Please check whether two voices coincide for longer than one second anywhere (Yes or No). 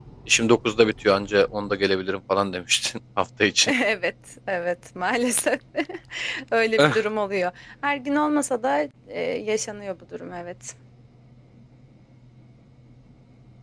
No